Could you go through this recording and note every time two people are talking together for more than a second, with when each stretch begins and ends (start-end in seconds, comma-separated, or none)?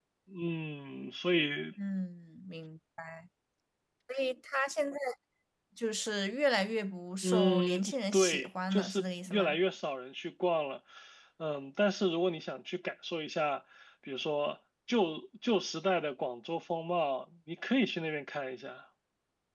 7.2-9.6